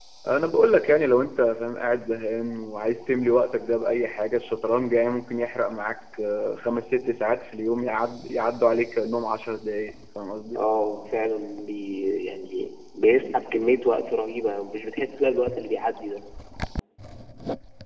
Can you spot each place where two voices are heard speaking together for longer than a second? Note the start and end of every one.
none

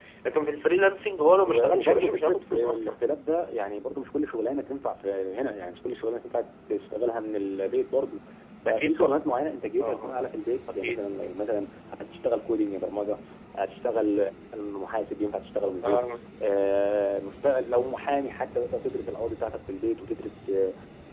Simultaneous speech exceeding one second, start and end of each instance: 1.5-3.0

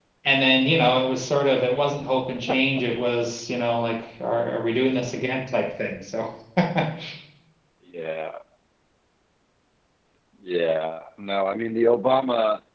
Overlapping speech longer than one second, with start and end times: none

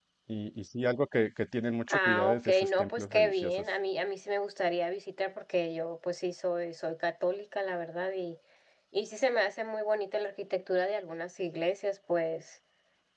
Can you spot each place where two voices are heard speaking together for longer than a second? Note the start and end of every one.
1.9-3.6

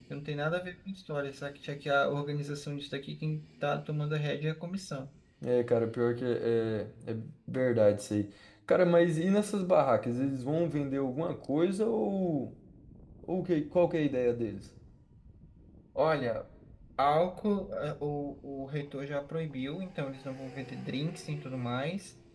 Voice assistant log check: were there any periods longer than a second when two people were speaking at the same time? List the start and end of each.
none

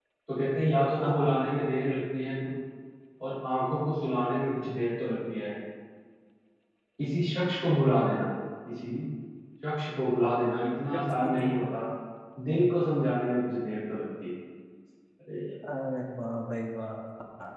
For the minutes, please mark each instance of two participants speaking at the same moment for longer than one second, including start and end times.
none

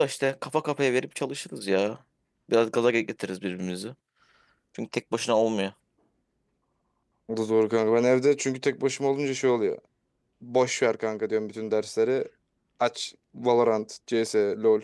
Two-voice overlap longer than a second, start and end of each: none

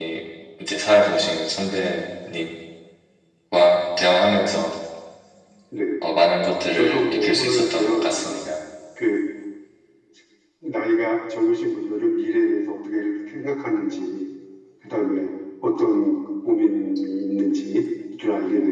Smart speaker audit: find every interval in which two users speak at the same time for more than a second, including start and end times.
6.7-8.4

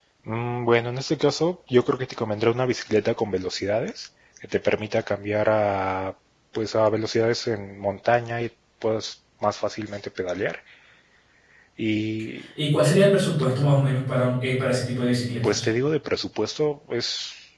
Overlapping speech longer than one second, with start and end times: none

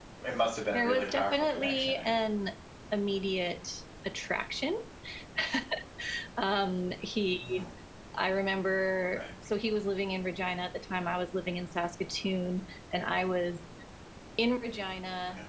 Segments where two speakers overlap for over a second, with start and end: 0.7-2.1

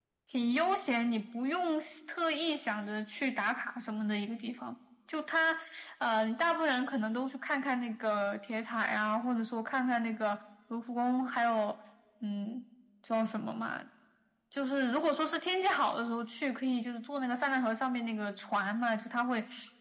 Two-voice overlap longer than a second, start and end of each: none

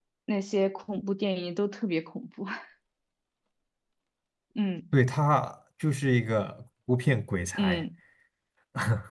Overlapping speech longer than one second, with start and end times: none

